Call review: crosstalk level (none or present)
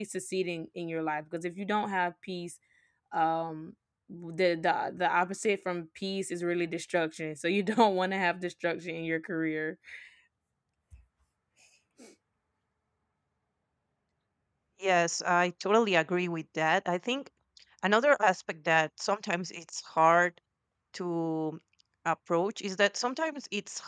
none